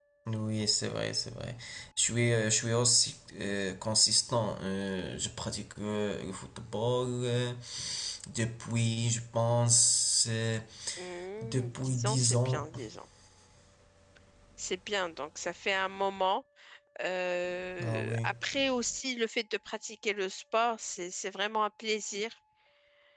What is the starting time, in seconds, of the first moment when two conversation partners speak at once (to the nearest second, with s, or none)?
11 s